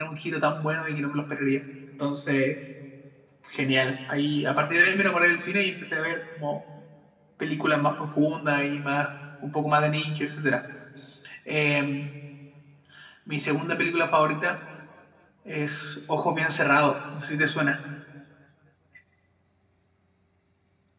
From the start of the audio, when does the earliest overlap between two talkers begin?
none

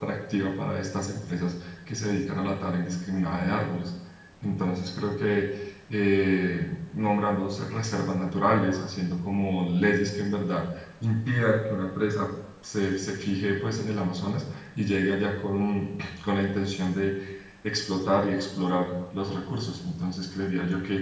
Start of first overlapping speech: none

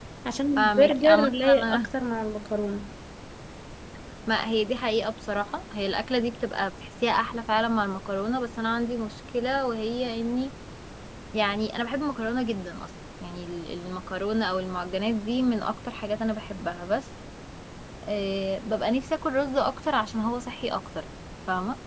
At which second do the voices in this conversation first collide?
0.6 s

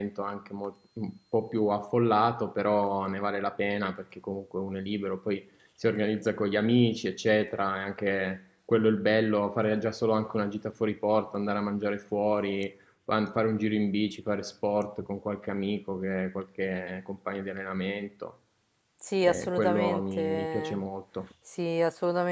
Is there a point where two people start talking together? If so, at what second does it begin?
19.2 s

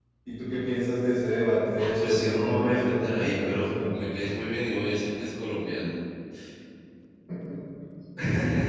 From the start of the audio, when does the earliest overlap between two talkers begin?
1.8 s

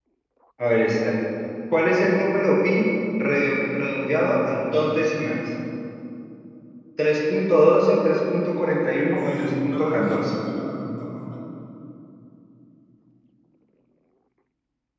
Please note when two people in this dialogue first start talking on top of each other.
9.1 s

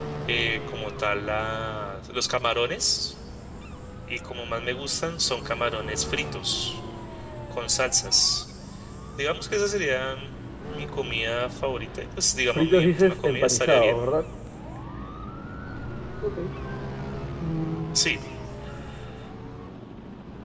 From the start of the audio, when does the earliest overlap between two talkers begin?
12.5 s

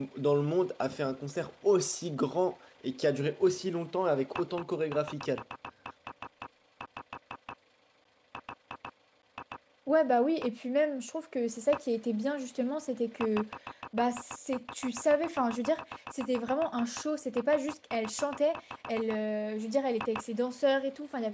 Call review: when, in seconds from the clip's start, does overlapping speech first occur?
none

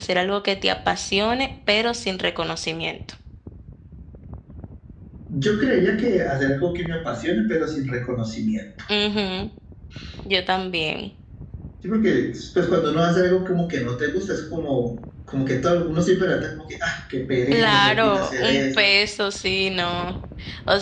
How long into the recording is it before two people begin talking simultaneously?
17.5 s

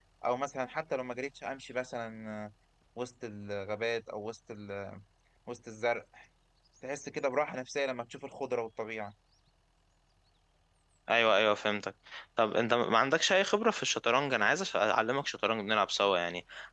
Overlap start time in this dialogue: none

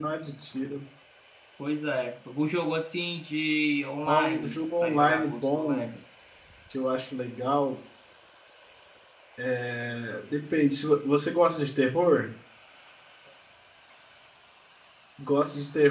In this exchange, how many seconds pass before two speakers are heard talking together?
4.1 s

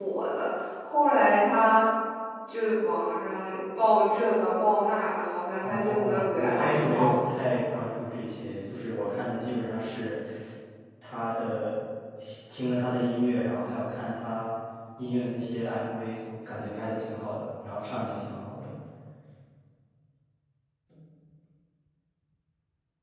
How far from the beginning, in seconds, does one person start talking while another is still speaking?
5.6 s

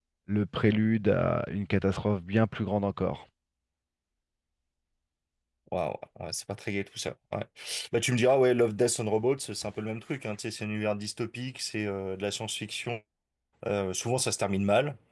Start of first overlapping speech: none

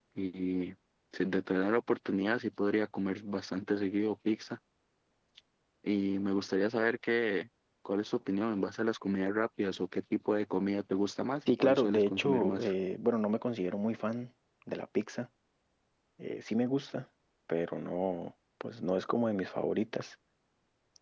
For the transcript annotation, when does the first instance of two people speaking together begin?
11.5 s

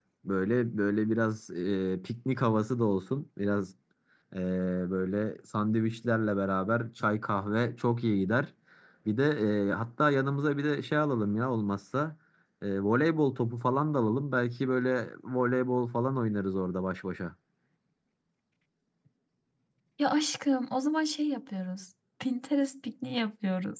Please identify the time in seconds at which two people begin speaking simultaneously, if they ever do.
none

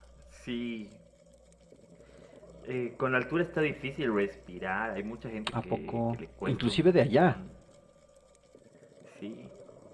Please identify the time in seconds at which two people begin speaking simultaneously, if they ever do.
5.7 s

